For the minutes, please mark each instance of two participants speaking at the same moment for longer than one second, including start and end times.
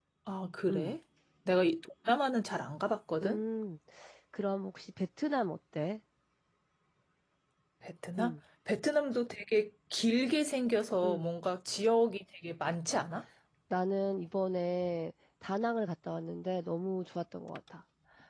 none

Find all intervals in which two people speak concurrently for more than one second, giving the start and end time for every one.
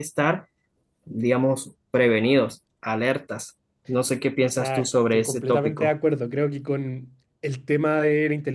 4.5-5.9

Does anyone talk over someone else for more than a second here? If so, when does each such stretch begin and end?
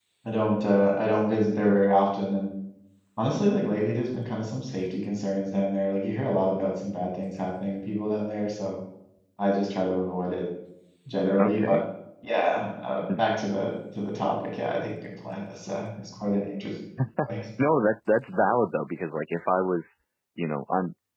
none

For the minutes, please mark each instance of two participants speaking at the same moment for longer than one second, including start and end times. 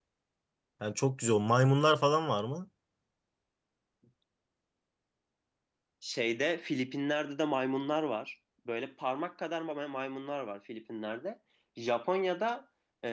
none

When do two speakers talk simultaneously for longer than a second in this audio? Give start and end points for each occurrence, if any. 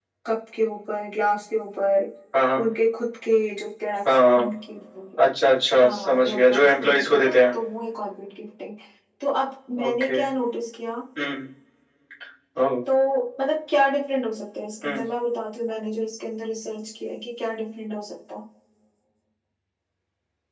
5.8-7.5

